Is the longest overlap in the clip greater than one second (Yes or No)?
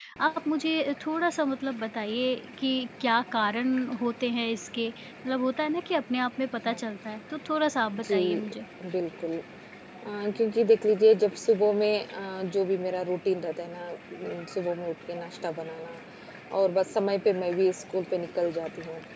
No